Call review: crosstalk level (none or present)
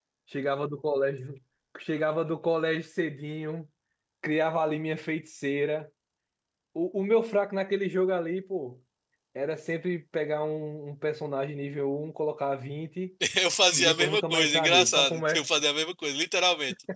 present